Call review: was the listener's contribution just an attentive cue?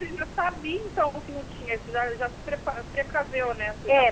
No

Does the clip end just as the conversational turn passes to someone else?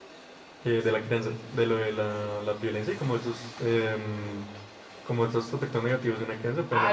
Yes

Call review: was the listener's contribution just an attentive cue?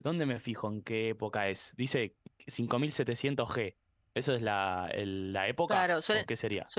No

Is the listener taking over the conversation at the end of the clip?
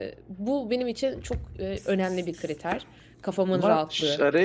Yes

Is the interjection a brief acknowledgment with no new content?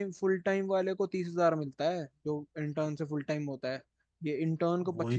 No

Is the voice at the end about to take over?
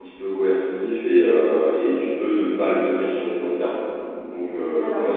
No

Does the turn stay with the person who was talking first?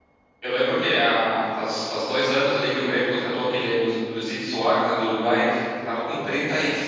Yes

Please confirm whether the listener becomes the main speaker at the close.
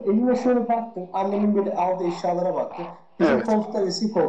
No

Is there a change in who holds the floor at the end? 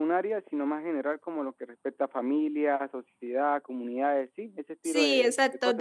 Yes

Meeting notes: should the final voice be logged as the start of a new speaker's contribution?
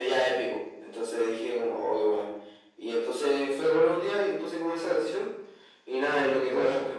No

